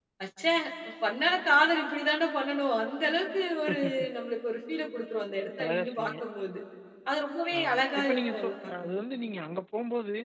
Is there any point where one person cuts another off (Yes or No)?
Yes